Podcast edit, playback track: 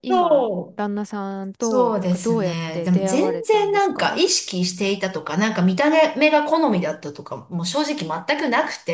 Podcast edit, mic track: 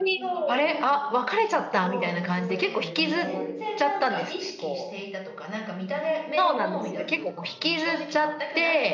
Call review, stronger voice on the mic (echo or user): user